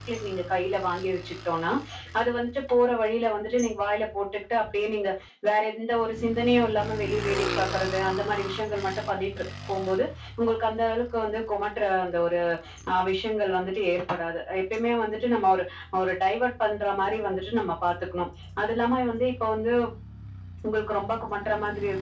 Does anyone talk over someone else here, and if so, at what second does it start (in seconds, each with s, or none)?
none